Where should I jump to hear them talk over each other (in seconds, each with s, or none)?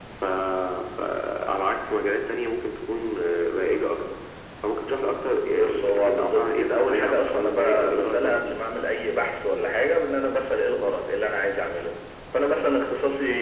5.5 s